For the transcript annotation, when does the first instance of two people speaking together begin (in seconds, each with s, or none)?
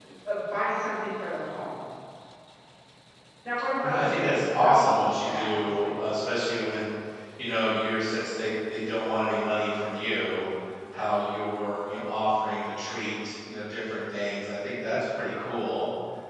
3.8 s